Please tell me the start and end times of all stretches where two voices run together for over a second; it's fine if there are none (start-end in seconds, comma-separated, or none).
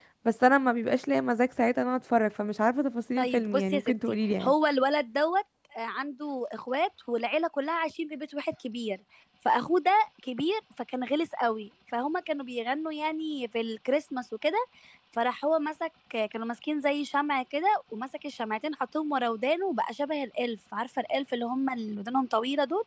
3.2-4.5